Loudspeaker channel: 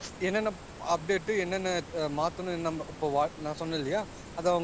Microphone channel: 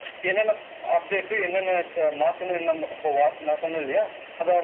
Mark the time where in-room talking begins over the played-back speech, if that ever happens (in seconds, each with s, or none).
none